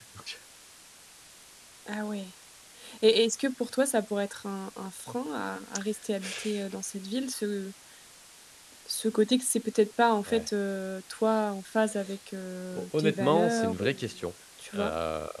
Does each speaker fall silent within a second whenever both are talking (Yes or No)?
No